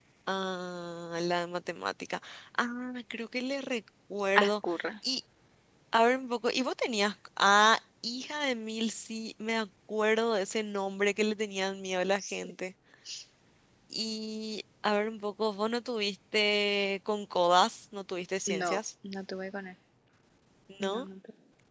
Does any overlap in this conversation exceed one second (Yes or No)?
No